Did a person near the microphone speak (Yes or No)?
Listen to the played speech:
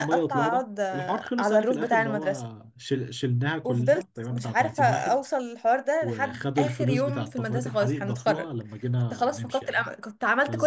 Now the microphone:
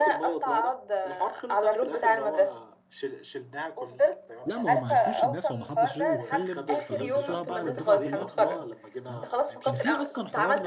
Yes